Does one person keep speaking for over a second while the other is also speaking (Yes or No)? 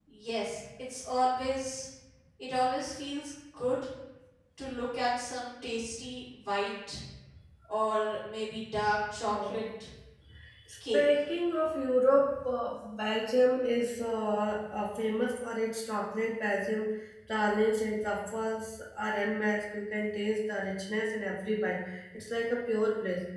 No